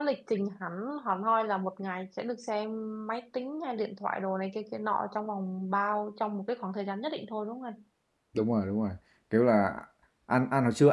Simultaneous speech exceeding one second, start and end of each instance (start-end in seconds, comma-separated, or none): none